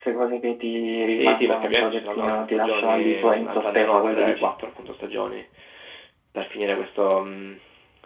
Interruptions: present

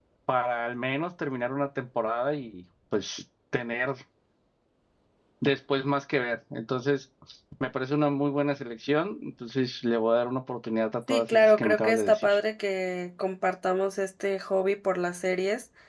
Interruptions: present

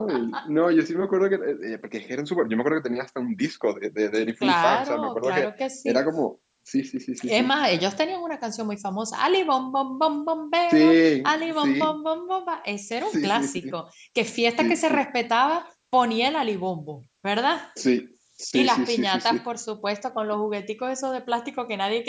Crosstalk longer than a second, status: present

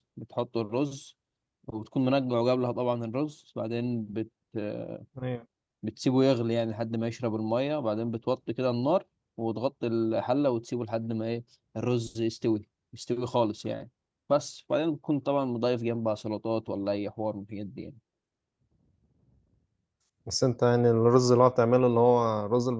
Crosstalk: none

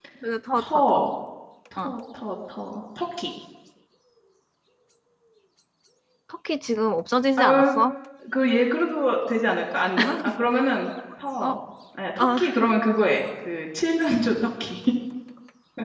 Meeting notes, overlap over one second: none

